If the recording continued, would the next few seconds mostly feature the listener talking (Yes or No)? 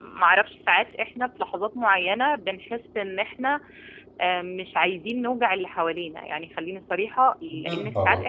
No